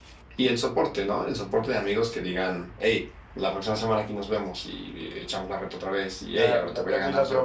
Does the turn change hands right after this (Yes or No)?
Yes